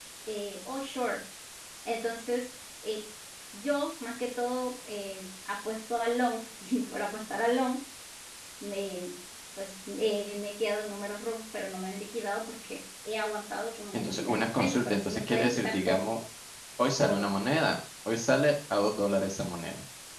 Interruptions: present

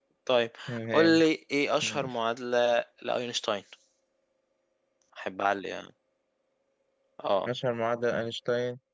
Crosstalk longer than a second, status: none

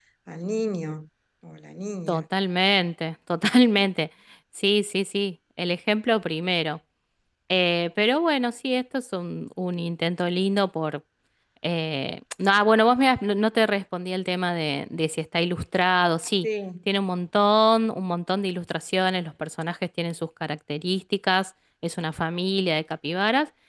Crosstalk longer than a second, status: none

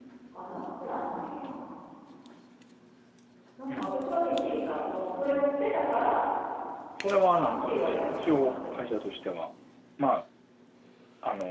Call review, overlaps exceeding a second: present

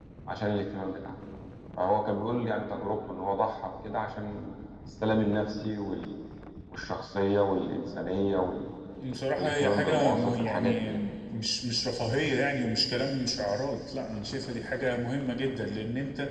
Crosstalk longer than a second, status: present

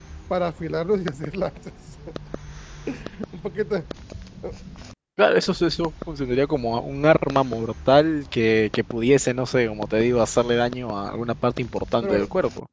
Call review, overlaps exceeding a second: none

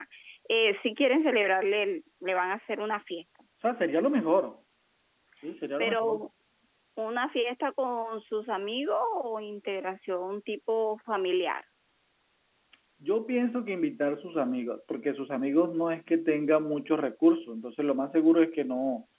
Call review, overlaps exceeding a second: none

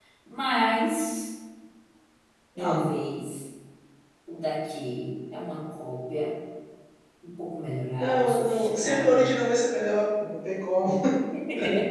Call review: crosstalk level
present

